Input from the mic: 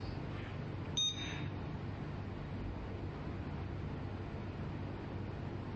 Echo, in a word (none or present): none